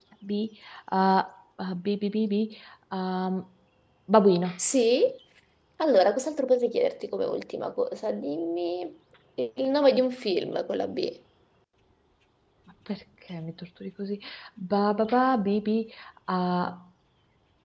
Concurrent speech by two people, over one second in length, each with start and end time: none

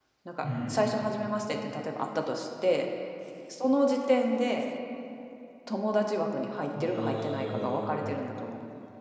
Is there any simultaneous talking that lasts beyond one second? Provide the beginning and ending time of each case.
6.8-8.1

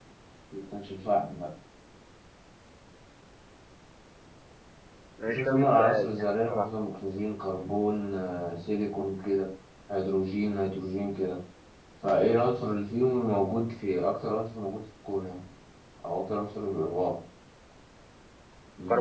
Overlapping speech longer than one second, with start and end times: 5.3-6.7

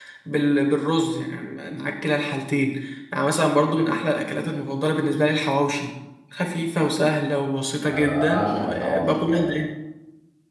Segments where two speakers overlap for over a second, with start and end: 7.8-9.6

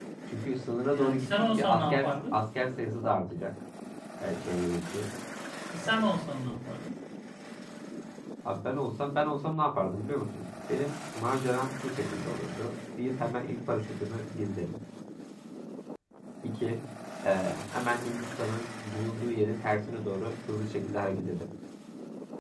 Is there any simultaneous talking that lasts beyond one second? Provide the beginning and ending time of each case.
0.9-2.3

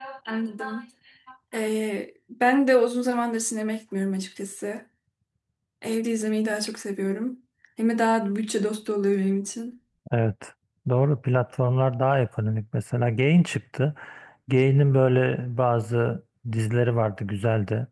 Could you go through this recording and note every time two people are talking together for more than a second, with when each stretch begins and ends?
none

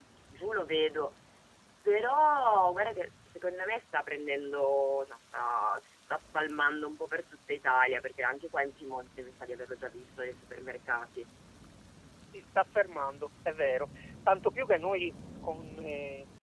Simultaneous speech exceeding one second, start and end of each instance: none

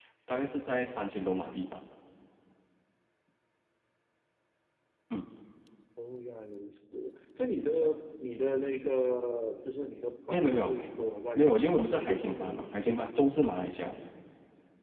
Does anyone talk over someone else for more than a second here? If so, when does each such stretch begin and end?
11.3-13.4

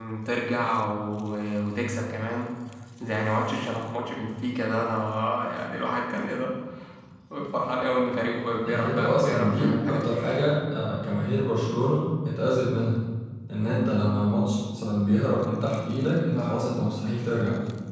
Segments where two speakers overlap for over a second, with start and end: 8.7-10.1

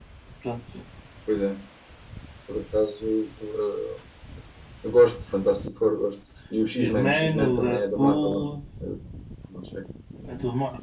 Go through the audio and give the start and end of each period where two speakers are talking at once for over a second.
6.7-8.5

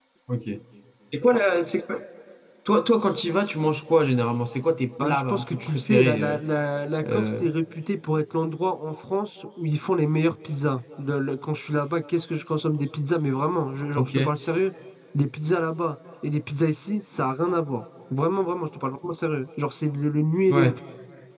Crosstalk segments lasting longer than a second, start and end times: 5.0-6.4

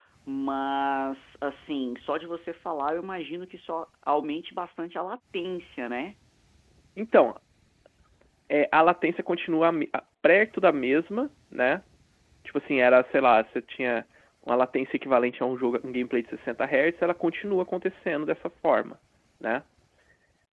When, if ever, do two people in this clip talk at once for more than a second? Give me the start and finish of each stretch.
none

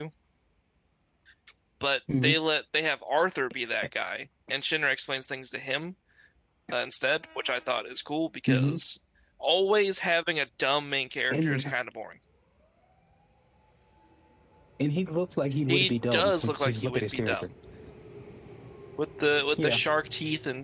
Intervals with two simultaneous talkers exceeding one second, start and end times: 15.7-17.5

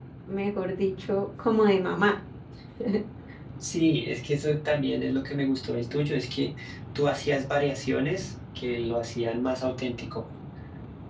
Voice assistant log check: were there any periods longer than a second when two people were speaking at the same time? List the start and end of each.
none

